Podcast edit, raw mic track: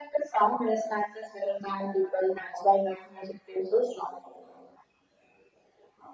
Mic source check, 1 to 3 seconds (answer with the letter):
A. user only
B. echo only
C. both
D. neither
B